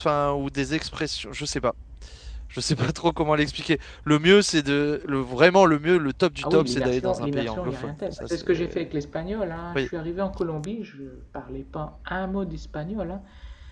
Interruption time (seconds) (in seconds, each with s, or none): 6.4 s